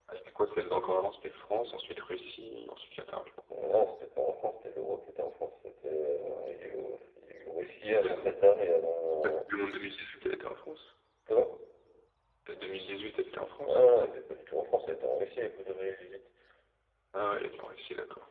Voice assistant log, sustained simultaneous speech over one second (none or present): none